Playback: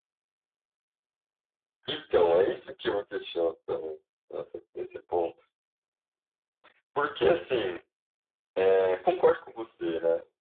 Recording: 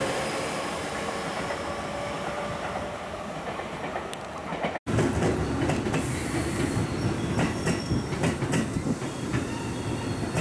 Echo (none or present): none